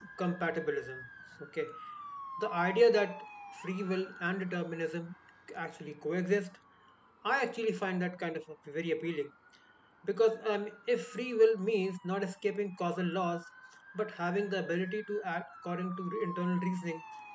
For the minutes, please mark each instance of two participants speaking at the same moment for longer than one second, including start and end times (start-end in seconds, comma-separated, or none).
none